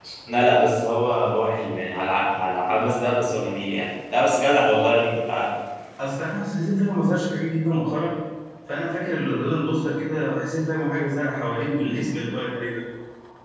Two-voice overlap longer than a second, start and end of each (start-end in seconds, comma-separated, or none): none